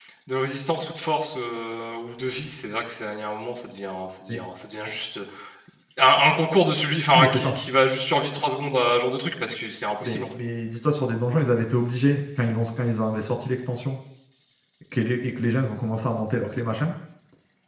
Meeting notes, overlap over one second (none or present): none